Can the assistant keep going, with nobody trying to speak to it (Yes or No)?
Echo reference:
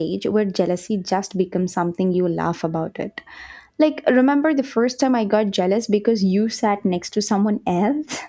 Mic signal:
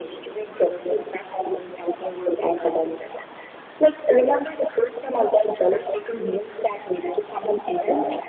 Yes